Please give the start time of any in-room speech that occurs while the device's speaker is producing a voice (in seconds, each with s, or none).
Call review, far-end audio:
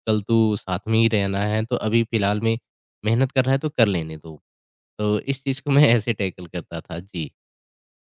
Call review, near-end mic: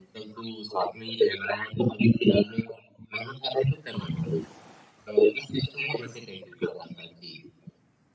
none